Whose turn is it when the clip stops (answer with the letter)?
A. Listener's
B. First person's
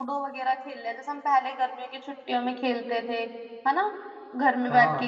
B